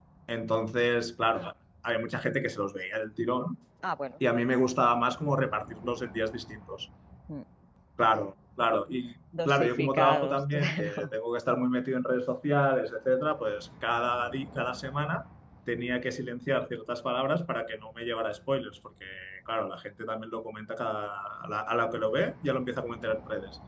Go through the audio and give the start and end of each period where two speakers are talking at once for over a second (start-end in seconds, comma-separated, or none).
9.4-11.2